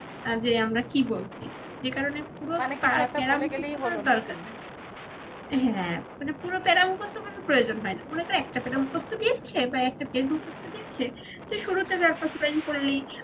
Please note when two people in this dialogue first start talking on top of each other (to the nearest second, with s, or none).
3 s